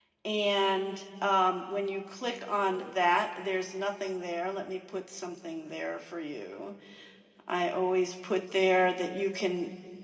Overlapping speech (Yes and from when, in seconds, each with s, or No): No